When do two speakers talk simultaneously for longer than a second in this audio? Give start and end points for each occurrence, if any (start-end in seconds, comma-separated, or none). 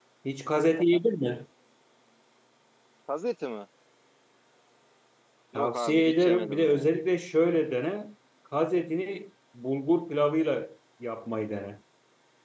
5.5-6.9